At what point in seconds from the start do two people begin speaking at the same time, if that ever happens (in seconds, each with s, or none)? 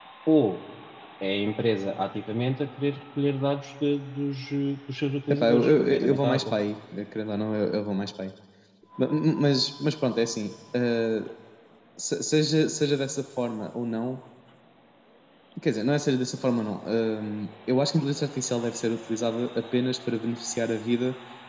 5.3 s